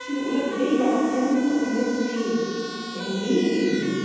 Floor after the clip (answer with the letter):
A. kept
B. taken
A